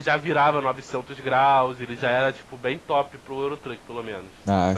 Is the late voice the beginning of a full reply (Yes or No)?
Yes